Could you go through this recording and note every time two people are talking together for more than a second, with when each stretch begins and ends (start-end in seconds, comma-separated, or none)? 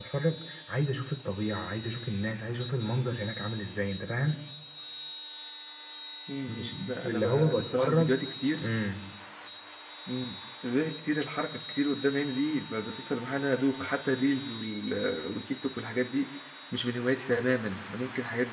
6.5-8.1